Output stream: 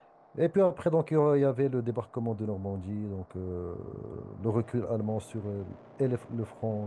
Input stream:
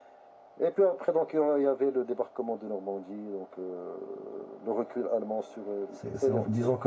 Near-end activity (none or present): present